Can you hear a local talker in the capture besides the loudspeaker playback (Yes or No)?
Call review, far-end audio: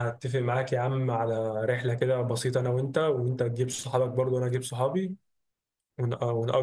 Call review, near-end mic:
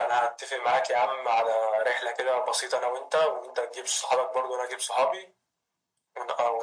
No